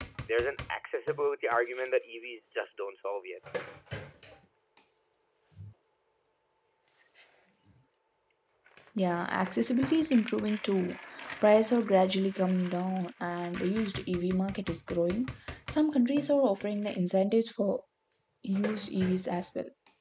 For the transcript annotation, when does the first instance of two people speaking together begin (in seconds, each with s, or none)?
none